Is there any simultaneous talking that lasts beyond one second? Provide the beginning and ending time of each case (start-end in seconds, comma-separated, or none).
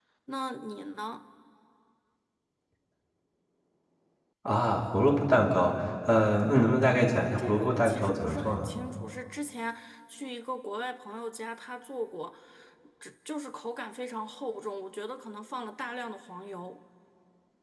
7.4-8.7